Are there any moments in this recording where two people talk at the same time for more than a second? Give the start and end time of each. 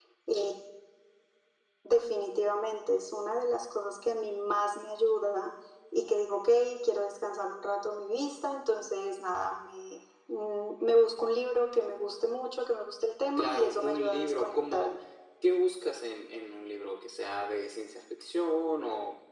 13.4-14.9

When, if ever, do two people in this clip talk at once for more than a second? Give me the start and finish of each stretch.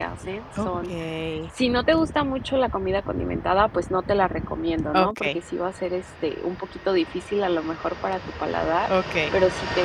none

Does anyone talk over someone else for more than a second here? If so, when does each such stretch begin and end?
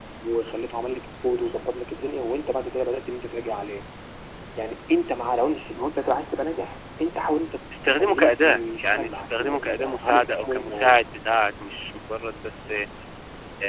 7.9-11.0

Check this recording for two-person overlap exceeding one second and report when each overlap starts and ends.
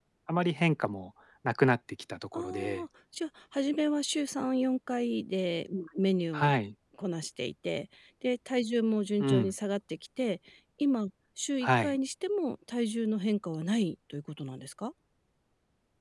none

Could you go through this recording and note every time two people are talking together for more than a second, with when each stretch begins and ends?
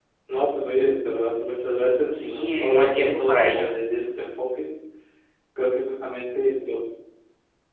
2.2-3.7

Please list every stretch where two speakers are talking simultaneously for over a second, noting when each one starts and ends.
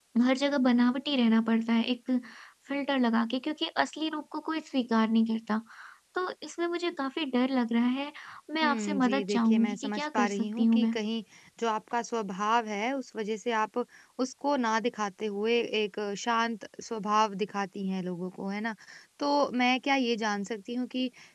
8.6-10.9

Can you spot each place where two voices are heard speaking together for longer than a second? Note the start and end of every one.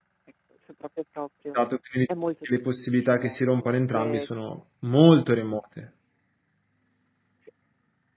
2.5-4.3

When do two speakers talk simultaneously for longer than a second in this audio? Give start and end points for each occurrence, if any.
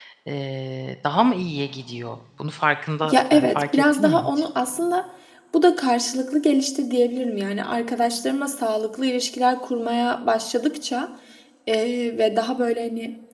3.1-4.4

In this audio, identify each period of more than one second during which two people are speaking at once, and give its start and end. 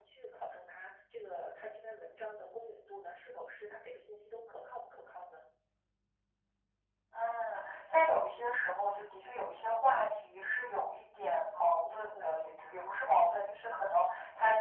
none

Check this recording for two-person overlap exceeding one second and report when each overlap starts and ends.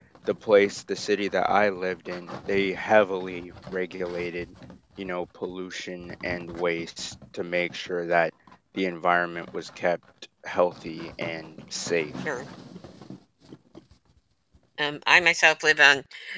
none

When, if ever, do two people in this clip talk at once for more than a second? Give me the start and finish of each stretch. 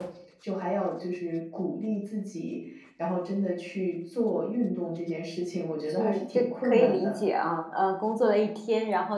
5.9-7.2

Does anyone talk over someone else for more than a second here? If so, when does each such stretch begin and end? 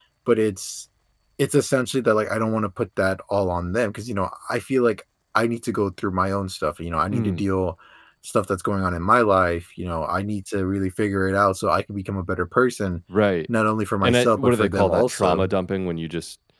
14.0-15.5

